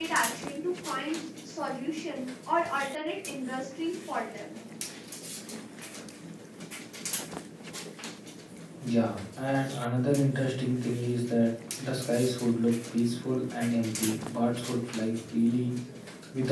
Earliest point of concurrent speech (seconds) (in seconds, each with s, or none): none